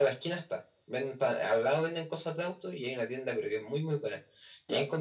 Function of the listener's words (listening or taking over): listening